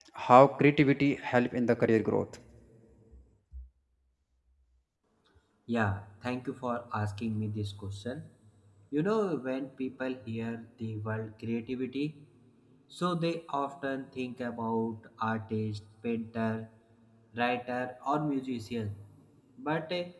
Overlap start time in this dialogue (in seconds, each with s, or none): none